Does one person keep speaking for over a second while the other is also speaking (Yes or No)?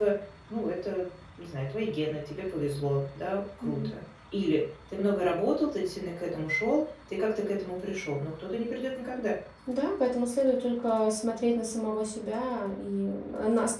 No